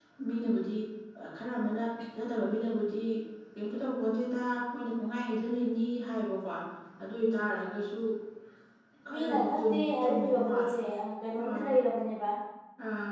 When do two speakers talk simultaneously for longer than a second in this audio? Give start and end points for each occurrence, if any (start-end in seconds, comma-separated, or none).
9.1-10.7